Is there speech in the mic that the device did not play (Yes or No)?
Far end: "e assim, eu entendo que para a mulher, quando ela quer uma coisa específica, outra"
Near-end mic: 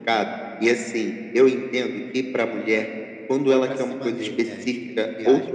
Yes